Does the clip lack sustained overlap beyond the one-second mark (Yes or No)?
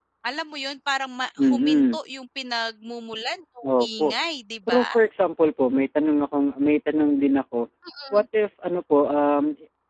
Yes